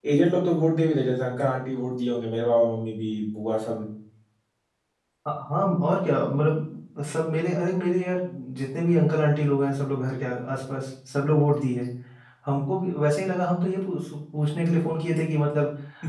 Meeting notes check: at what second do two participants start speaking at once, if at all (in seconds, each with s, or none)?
none